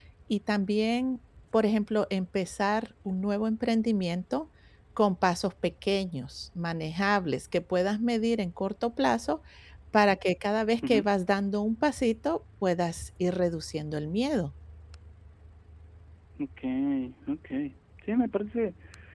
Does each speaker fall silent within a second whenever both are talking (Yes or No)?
Yes